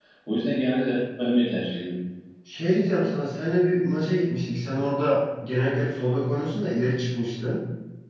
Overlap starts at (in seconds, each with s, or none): none